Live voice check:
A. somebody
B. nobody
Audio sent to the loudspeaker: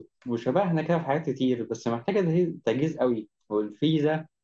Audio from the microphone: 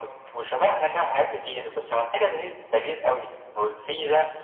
B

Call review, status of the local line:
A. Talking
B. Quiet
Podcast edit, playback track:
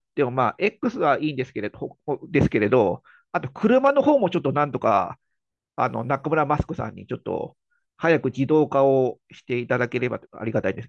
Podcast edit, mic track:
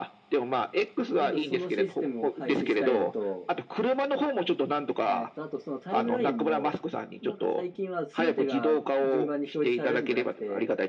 A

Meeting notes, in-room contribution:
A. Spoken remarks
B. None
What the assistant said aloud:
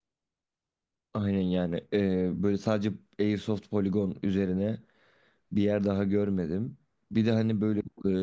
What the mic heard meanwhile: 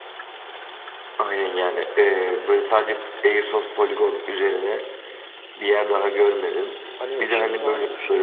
A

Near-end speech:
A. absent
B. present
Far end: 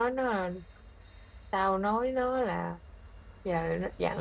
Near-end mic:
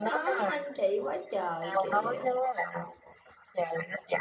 B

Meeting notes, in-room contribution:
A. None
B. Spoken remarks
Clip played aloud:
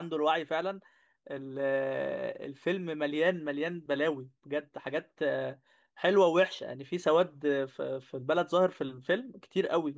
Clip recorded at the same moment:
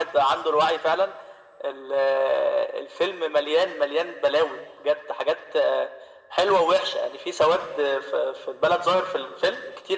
A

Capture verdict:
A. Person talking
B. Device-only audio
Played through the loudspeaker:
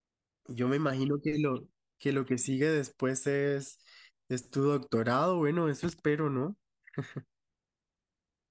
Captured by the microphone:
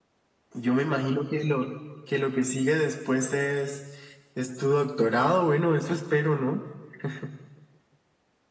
B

